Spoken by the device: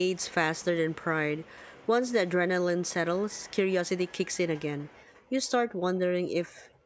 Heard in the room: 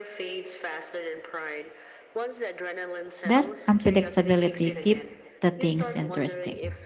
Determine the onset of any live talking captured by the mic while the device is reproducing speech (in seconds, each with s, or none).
3.2 s